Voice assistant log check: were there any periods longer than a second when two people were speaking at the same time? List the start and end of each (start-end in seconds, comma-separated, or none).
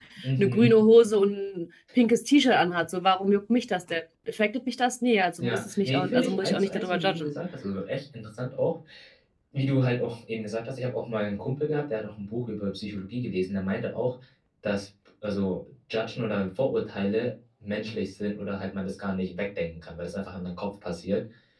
5.4-7.3